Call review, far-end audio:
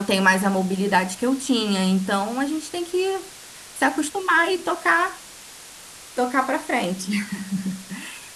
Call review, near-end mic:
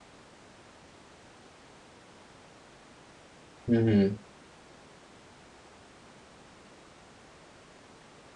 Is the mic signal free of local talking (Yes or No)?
No